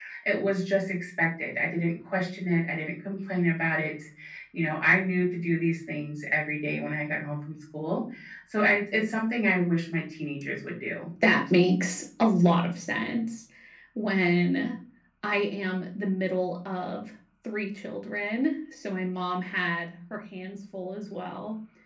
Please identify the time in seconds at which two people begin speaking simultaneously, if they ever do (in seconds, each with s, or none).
none